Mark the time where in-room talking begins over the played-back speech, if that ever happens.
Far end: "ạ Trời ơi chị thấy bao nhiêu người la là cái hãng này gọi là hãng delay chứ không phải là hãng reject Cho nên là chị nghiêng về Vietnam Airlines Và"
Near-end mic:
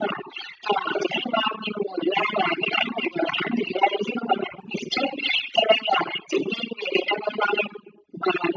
none

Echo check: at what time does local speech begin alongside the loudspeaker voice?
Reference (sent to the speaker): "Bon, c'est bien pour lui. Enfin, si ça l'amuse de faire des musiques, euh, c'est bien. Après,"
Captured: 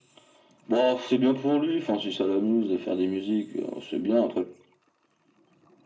none

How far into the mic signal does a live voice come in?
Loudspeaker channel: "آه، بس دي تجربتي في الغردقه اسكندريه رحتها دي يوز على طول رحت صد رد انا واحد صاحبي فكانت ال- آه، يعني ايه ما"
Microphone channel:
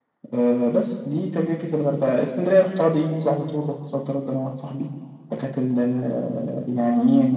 none

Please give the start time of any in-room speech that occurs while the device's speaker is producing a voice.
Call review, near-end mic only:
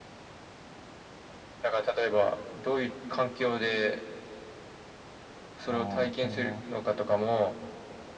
5.7 s

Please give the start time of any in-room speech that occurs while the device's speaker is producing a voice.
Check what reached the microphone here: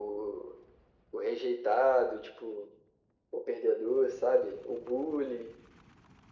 none

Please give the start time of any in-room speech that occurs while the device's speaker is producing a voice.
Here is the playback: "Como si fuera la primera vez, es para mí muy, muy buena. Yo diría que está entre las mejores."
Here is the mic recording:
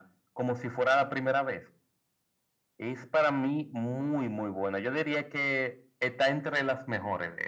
none

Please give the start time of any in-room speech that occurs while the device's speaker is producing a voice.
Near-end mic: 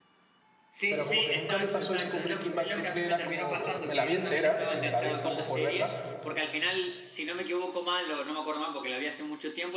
0.9 s

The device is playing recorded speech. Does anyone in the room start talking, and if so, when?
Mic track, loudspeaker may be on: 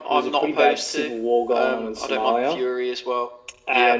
none

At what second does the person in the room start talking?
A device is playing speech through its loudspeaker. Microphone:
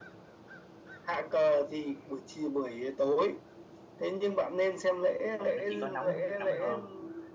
5.4 s

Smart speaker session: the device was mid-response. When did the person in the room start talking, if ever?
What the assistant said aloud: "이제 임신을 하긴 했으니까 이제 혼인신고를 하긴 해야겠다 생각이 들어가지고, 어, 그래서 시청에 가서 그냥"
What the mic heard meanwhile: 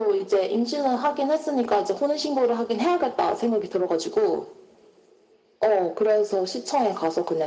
none

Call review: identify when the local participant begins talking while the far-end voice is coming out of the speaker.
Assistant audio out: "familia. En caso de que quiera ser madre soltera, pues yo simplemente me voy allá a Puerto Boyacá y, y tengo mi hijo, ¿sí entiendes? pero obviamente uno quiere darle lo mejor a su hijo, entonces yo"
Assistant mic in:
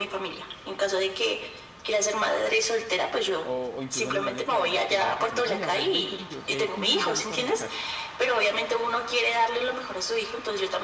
3.4 s

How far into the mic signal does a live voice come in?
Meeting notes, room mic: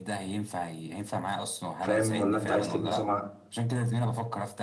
1.8 s

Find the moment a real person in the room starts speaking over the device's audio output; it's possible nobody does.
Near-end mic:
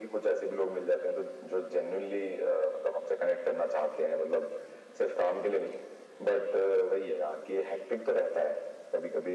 none

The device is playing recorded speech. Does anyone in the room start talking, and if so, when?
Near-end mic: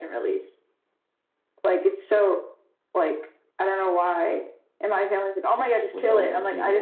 5.9 s

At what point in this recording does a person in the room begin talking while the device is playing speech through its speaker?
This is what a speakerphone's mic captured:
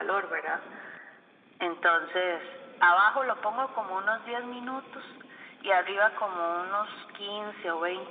none

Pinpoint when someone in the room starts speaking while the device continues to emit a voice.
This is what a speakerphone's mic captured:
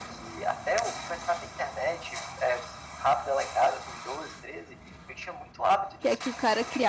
6.0 s

